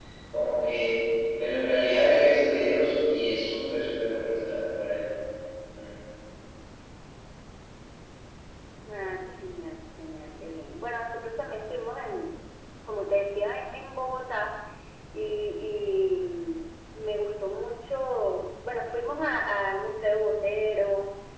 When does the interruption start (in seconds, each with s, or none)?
none